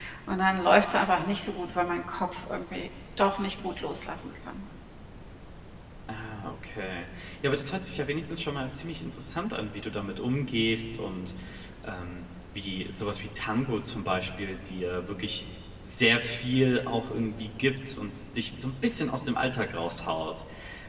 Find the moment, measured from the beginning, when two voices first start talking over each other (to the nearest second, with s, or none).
none